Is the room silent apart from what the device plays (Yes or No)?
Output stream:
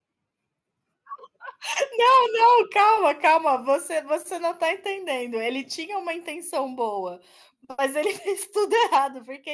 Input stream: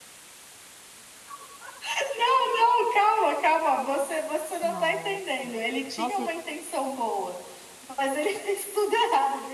No